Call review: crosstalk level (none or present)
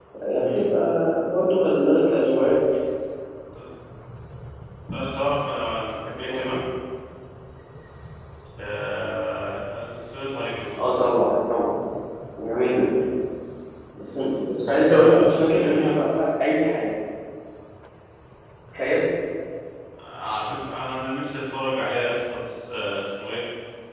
present